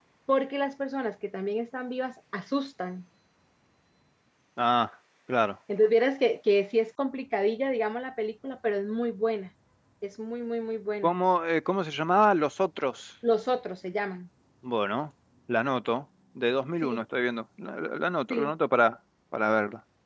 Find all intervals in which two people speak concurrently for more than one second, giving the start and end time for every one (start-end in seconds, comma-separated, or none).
none